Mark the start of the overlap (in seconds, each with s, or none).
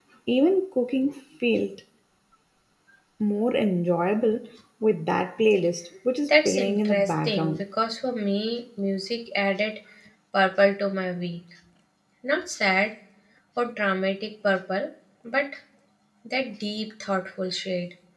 6.3 s